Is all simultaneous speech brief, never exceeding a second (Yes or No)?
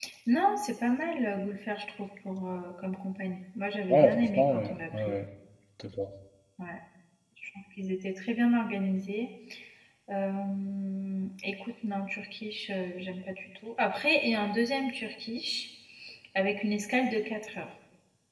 No